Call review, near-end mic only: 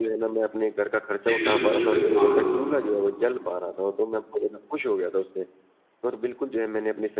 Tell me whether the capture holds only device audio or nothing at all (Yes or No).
No